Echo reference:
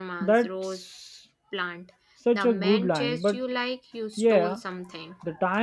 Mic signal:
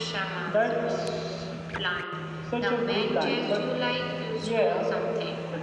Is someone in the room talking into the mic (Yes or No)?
No